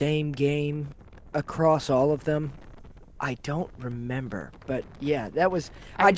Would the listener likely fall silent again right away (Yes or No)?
Yes